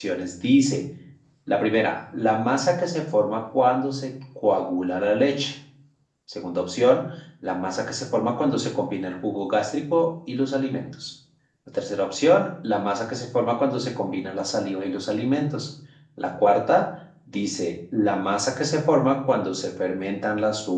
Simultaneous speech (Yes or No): No